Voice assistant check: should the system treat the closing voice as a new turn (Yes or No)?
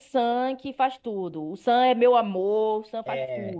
Yes